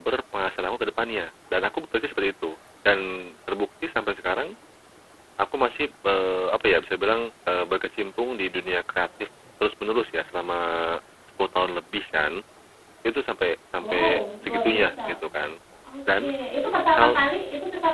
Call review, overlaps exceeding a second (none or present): present